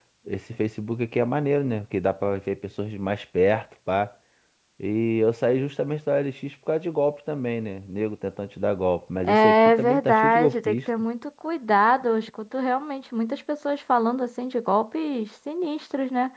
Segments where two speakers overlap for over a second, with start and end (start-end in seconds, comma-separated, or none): 9.2-10.8